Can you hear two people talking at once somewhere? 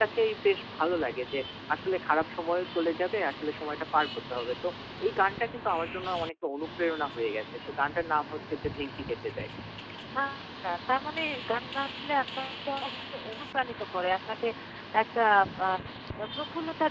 No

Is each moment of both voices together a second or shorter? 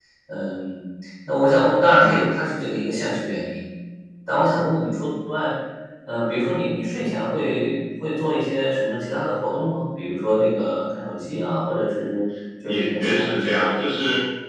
No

